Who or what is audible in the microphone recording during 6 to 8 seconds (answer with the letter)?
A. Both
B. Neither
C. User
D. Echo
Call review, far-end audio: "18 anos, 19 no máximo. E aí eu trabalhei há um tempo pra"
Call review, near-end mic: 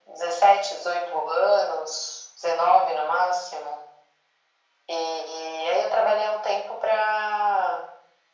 D